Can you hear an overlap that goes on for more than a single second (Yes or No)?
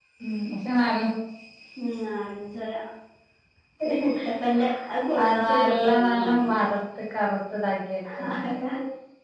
Yes